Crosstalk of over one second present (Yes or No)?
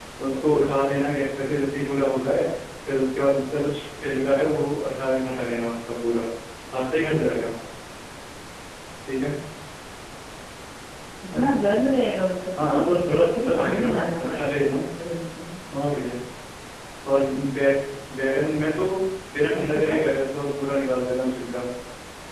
Yes